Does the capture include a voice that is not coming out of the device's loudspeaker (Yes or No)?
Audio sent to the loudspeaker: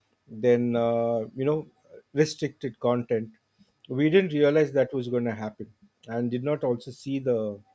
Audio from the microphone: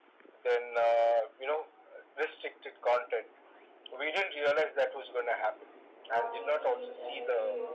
Yes